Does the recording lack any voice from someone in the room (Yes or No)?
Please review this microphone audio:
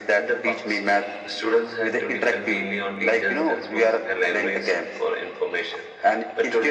Yes